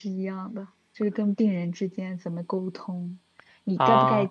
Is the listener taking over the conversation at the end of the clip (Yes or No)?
No